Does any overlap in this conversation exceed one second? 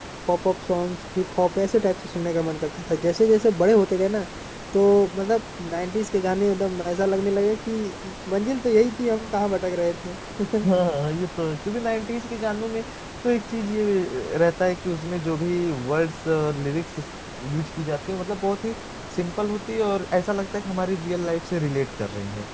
No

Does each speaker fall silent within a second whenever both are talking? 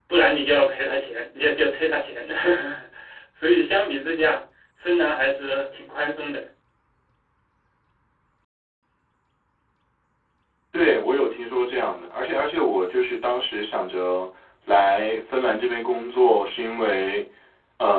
Yes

